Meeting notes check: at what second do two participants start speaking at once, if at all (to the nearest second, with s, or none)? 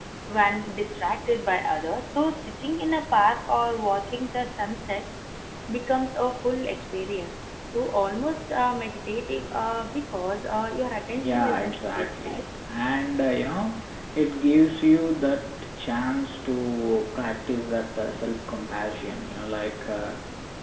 11 s